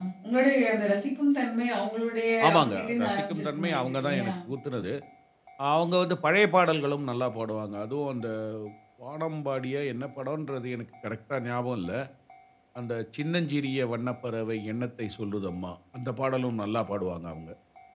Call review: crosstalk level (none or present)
present